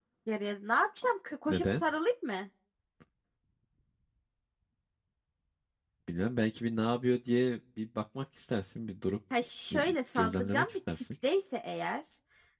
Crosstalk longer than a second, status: present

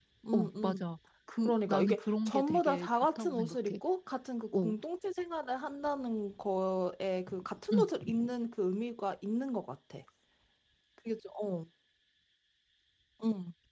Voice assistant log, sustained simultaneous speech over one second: present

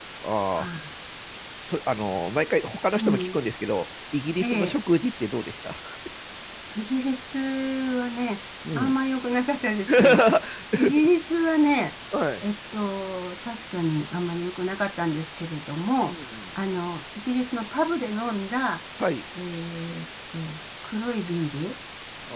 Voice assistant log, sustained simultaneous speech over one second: none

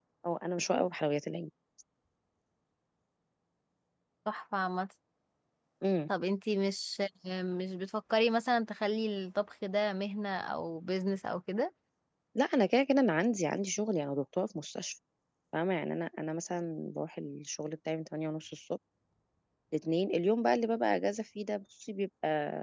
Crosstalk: none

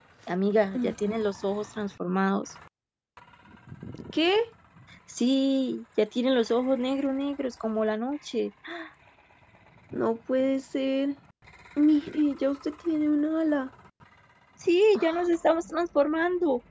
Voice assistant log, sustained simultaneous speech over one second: none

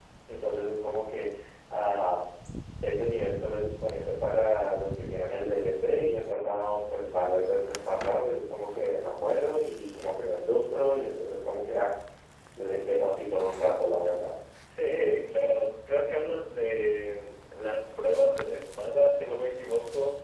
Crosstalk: none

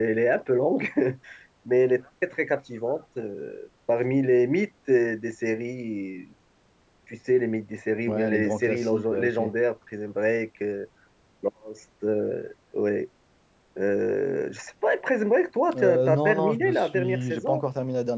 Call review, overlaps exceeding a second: present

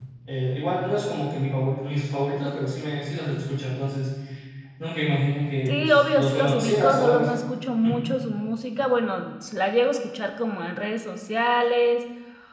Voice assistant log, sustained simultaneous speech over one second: present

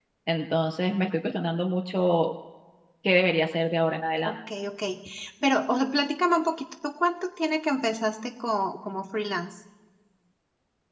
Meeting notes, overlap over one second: none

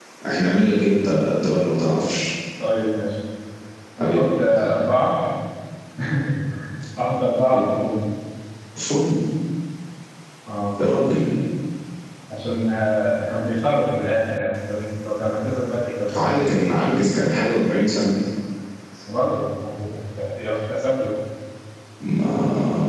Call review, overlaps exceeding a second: none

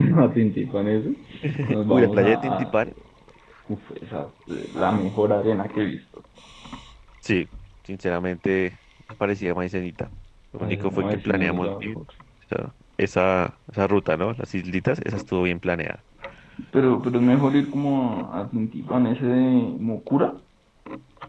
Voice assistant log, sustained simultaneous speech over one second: present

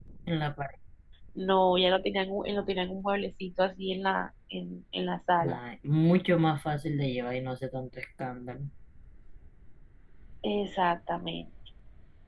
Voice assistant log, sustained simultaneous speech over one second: none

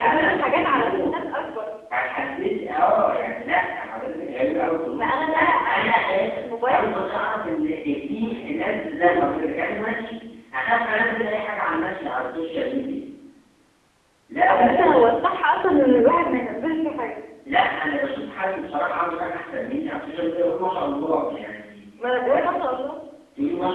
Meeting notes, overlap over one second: present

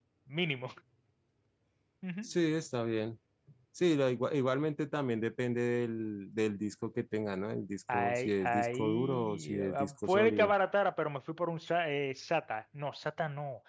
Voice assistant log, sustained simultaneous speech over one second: present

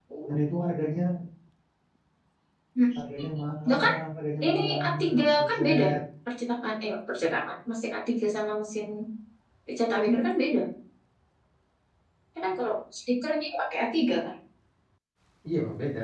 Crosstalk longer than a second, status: present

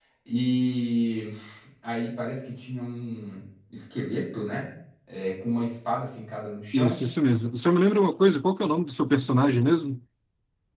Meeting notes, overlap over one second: none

